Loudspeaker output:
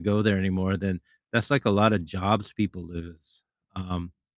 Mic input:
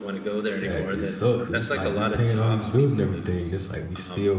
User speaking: Yes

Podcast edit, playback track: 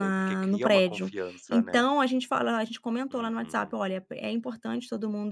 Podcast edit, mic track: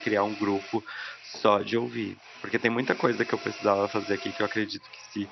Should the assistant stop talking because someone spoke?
Yes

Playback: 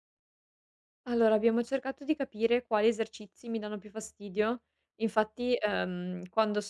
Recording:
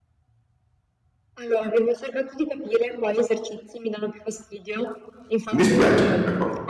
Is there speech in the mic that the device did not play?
Yes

